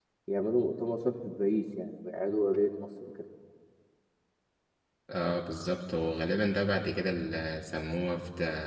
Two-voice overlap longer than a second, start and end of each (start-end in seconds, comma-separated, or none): none